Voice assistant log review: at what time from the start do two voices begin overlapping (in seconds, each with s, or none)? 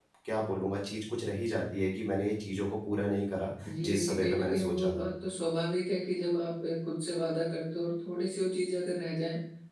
3.6 s